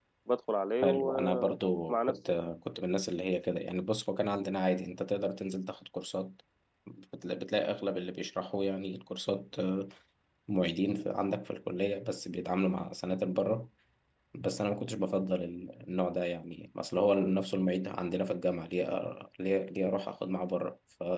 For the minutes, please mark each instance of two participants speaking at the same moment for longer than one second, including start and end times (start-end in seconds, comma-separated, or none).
0.8-2.2